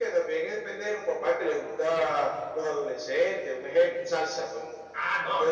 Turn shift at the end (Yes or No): Yes